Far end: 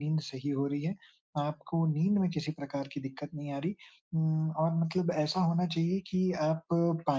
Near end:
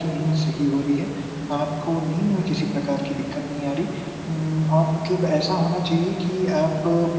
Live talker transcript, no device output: none

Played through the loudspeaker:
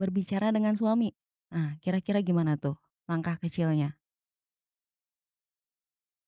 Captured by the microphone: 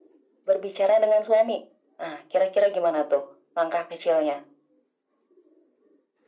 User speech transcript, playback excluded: none

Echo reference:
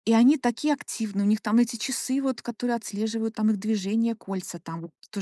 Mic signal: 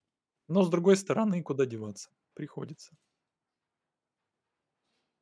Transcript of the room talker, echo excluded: Но, с другой стороны, куда деваться? Приходится.

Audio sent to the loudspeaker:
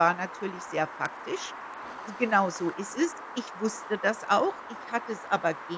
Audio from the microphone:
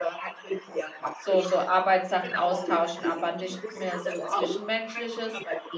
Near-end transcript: so so Arbeitssachen austauschen, aber nicht mehr so Zwischenmenschliches.

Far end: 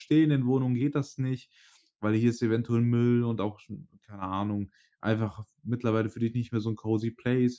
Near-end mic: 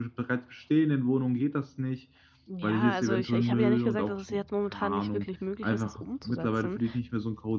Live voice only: Ja, also ich ich habe ja nicht gesagt, dass es jetzt momentan nicht wirklich möglich ist, das umzusetzen.

